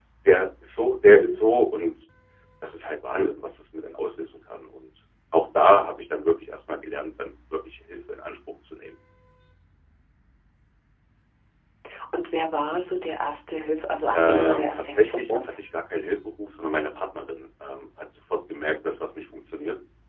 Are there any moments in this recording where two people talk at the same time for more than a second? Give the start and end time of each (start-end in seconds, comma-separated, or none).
14.1-15.4